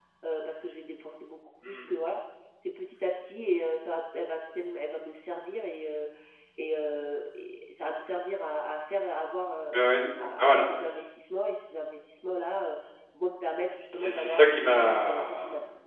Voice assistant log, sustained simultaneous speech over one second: present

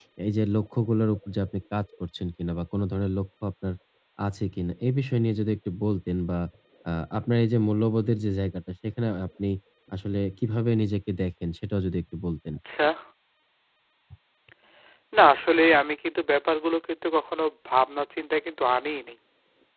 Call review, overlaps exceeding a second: none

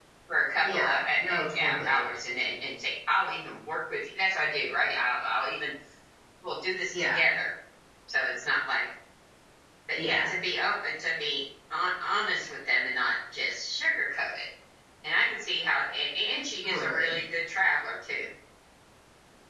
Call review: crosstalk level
present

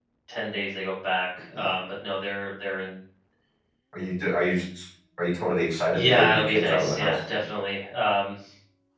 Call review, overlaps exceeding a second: present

